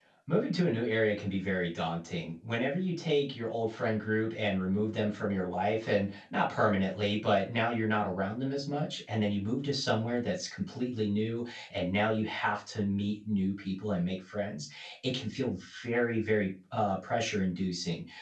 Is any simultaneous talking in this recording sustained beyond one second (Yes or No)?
No